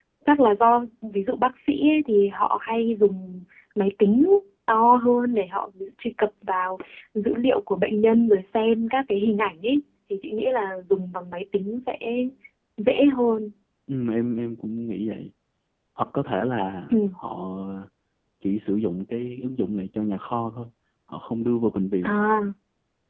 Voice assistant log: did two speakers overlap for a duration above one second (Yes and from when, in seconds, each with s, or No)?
No